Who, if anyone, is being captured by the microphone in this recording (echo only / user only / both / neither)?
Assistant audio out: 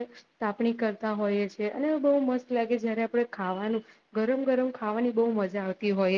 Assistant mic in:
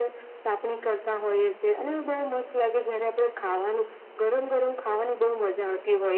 echo only